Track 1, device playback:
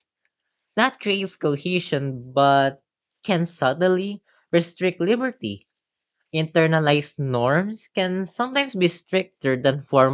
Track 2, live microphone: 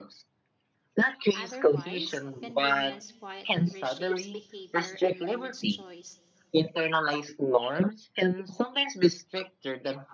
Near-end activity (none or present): present